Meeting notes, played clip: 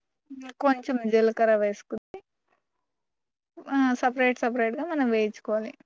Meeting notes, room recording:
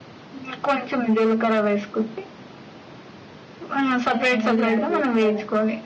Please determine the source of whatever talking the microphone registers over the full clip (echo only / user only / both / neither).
both